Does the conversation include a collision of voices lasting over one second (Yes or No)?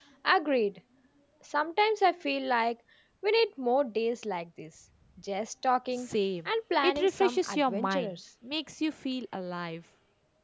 Yes